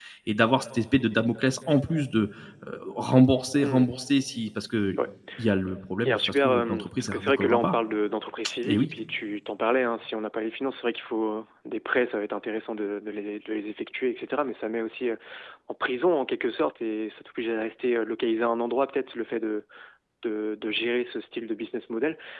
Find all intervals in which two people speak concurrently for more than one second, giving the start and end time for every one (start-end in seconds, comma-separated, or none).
6.0-7.8